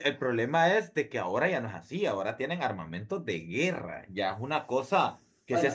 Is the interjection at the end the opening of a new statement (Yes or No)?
No